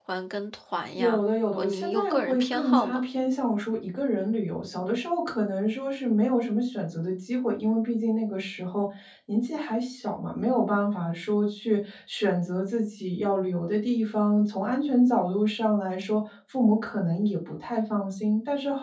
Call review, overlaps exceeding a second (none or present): present